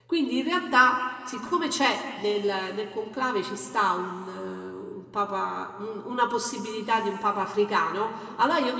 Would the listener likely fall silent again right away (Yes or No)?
Yes